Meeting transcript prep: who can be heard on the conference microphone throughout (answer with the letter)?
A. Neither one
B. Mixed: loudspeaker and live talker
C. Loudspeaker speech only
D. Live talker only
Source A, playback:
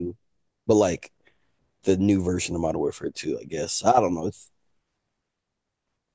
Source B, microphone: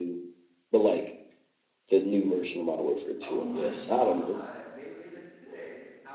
B